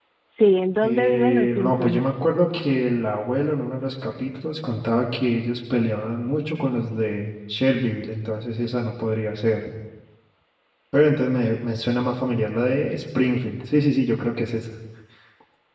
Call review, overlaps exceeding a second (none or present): present